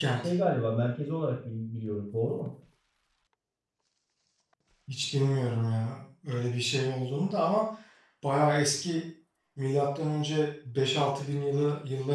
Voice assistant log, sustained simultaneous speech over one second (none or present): none